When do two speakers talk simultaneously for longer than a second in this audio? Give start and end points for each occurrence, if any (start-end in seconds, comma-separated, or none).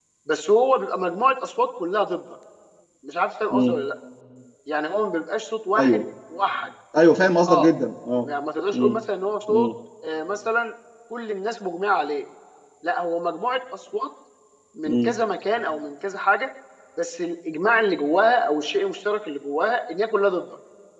none